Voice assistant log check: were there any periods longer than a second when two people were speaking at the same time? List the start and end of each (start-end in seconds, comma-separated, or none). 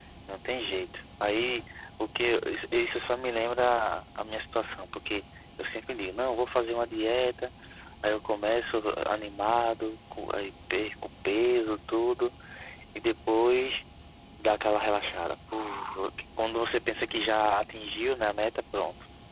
none